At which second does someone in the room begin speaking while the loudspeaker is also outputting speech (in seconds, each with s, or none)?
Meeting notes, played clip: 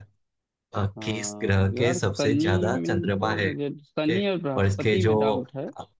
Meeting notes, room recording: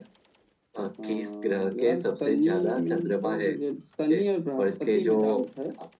none